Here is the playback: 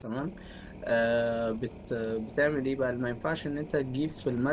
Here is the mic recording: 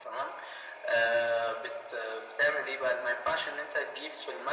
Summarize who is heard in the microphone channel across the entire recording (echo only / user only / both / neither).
echo only